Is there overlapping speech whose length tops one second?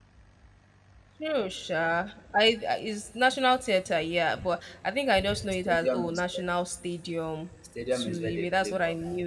Yes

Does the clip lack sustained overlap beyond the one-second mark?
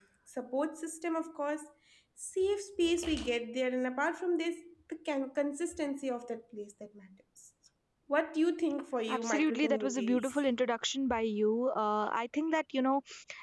No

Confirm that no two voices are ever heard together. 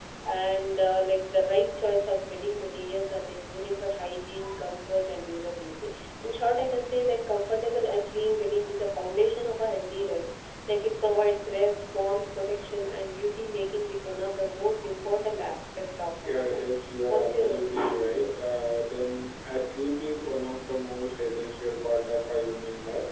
No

